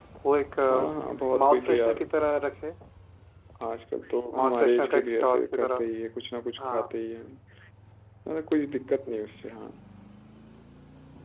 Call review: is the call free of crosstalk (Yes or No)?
No